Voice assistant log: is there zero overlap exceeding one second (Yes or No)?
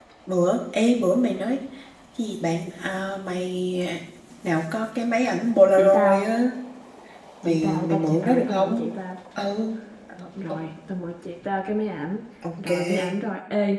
No